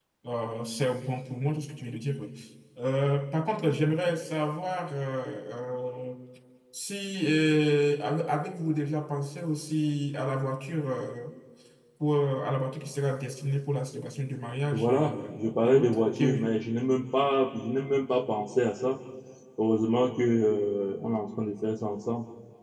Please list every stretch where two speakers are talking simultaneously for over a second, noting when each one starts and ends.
14.7-16.5

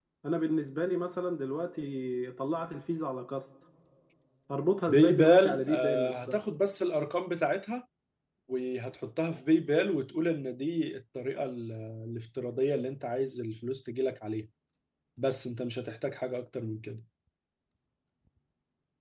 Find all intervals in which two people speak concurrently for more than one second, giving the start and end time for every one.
4.9-6.4

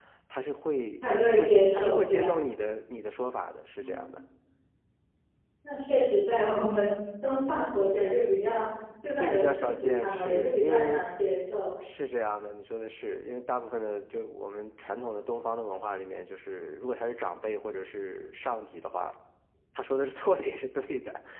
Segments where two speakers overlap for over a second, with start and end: 1.0-2.3, 9.2-11.0

